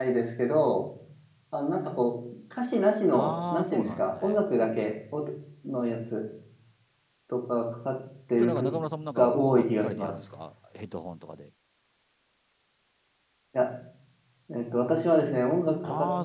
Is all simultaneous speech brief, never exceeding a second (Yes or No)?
No